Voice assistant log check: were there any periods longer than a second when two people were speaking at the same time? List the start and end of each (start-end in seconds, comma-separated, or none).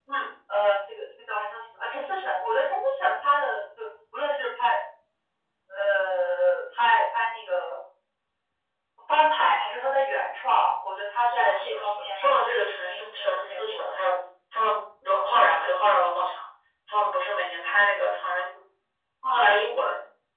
11.3-13.9